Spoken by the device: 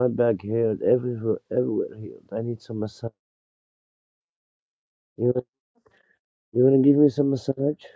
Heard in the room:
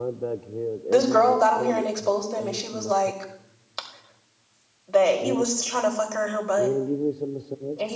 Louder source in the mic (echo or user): user